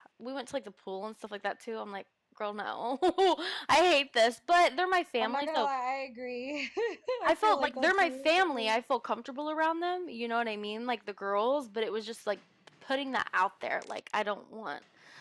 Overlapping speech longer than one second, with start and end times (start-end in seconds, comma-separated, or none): 7.3-8.8